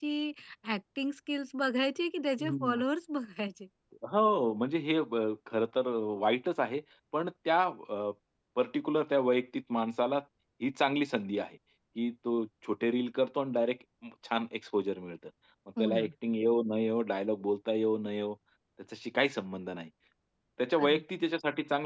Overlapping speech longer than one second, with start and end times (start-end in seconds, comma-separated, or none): none